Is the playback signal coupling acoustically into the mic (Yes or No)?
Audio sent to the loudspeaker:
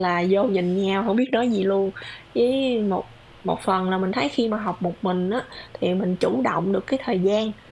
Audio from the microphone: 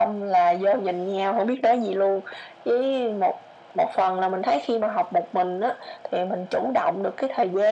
Yes